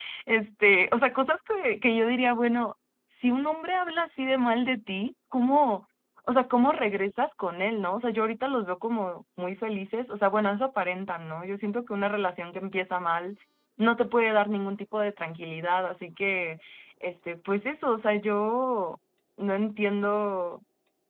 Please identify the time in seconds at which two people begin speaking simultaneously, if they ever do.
none

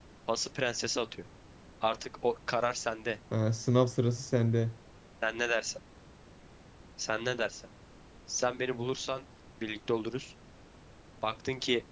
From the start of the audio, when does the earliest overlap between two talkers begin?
none

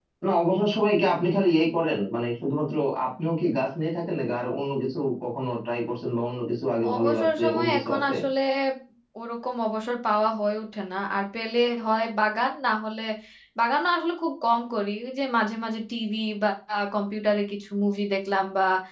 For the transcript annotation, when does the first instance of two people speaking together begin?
6.8 s

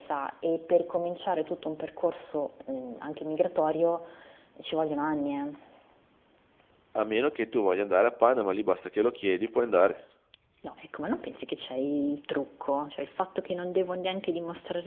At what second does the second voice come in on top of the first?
none

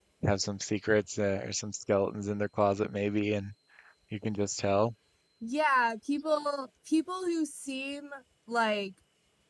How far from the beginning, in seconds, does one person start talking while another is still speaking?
none

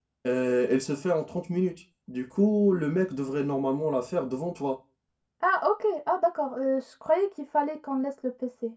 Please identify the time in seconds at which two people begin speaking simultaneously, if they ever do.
none

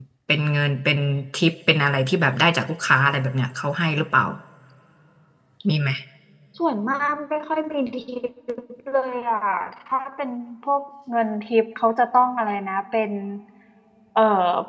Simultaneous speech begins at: none

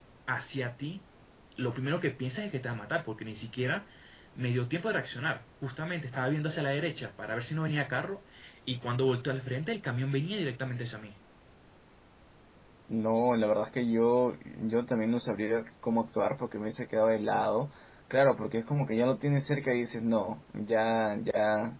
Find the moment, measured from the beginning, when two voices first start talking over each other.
none

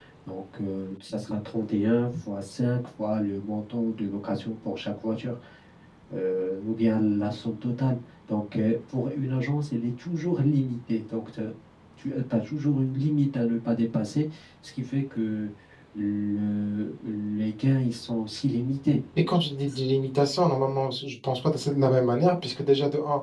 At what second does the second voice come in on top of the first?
none

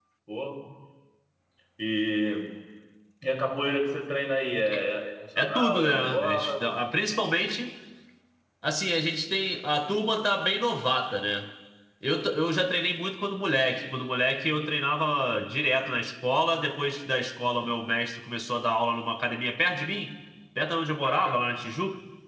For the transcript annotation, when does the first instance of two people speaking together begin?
5.4 s

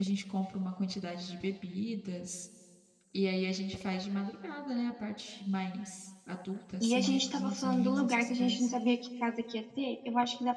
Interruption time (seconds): 6.8 s

